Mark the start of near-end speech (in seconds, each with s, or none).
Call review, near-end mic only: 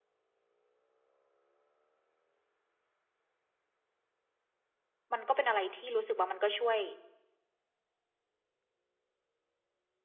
5.1 s